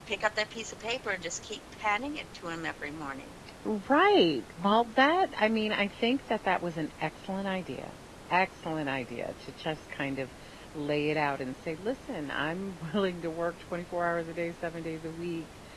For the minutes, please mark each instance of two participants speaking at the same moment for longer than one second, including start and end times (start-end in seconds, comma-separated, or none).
none